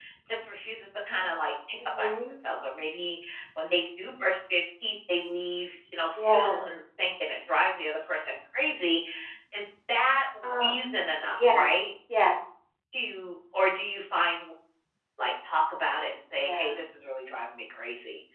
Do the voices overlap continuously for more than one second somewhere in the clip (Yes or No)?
No